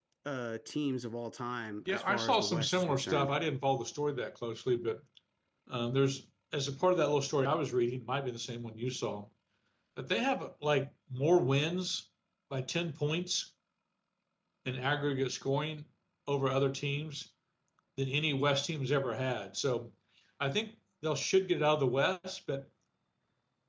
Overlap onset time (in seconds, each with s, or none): 1.9 s